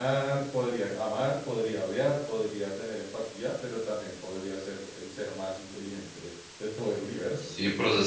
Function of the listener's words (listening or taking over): taking over